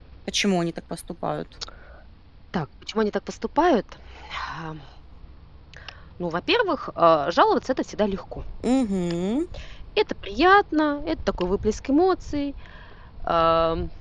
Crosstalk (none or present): none